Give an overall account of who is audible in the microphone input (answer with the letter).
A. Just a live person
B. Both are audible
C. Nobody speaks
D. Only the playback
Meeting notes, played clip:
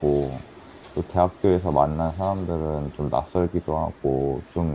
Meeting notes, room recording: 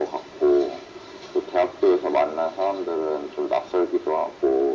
D